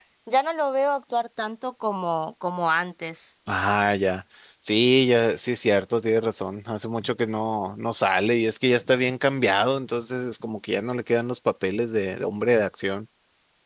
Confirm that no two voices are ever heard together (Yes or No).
Yes